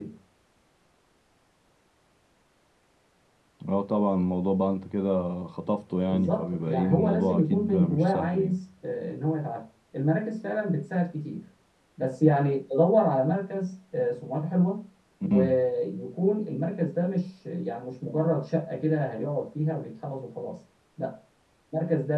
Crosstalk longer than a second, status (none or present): present